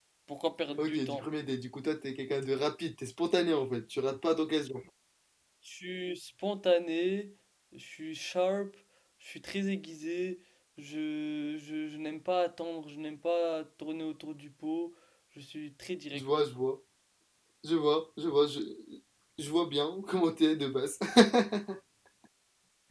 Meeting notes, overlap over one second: none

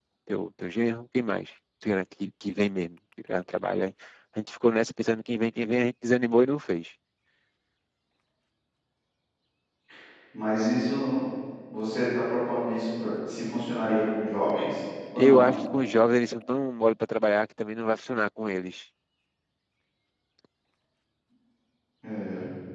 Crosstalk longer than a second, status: none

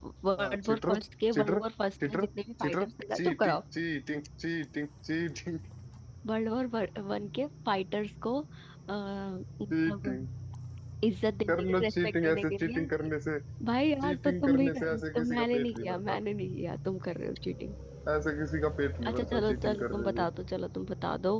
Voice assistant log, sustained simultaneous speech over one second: present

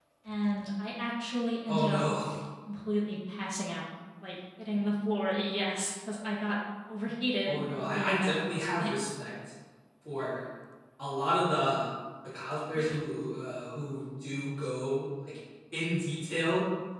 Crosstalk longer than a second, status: present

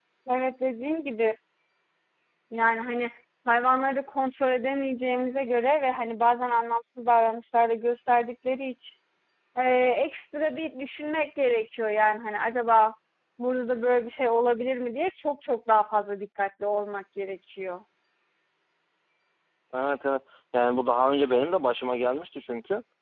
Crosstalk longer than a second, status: none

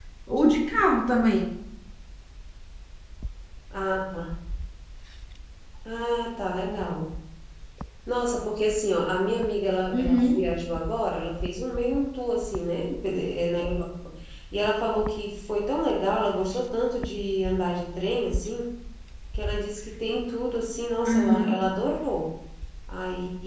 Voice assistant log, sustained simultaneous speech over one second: none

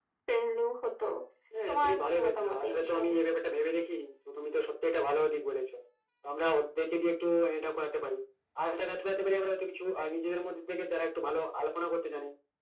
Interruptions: present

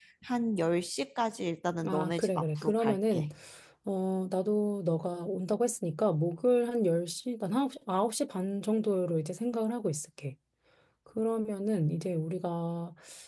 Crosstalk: present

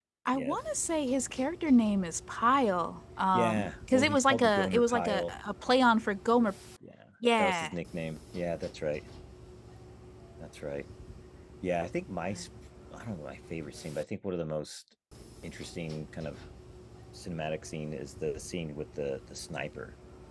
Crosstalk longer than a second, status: present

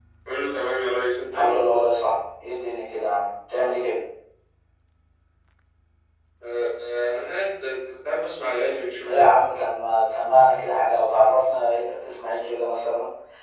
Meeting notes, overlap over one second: none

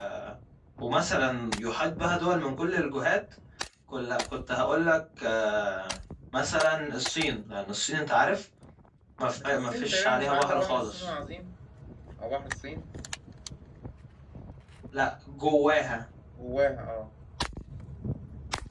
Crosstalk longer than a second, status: present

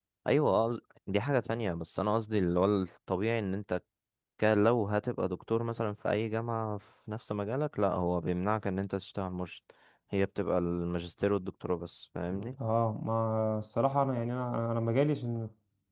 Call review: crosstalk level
none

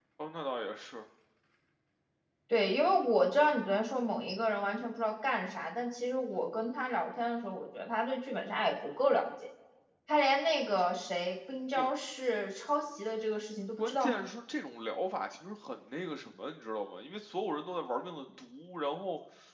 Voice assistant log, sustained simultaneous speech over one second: none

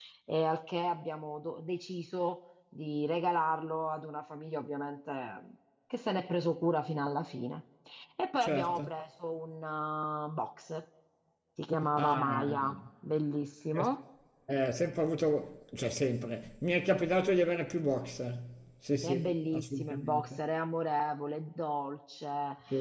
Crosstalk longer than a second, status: present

